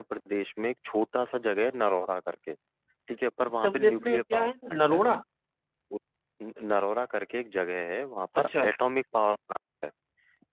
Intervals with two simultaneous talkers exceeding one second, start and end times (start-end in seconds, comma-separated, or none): 3.5-5.0